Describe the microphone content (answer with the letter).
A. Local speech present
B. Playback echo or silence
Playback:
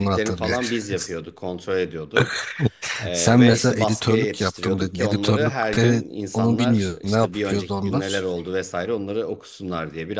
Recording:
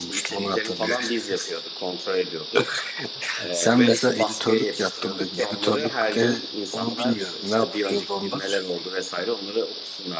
B